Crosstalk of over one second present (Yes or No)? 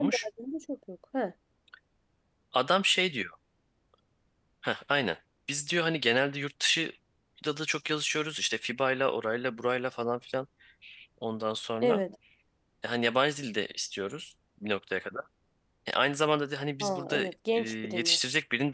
Yes